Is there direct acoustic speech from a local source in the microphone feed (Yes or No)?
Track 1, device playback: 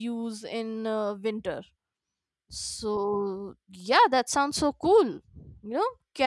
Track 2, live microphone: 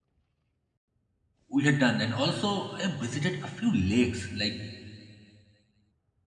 Yes